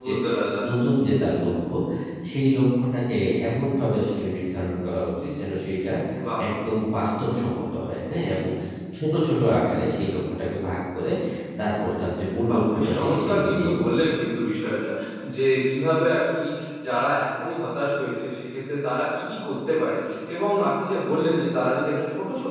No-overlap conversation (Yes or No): No